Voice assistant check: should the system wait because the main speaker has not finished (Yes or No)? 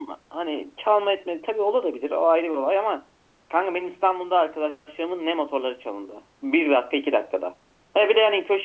Yes